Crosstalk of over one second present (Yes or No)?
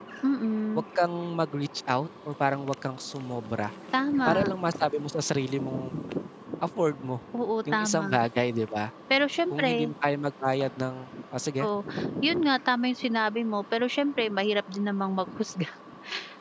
No